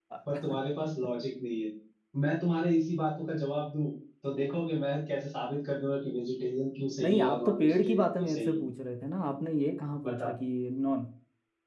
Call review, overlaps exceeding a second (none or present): present